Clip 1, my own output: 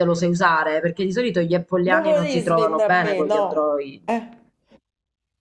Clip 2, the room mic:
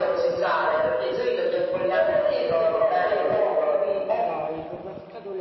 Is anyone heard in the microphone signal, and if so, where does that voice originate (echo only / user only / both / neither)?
both